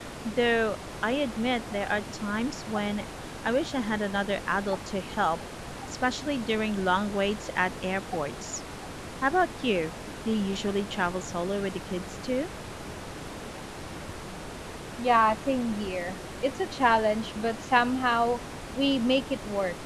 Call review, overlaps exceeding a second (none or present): none